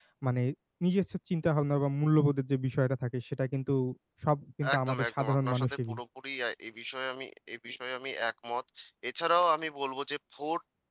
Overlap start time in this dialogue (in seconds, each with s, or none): 4.8 s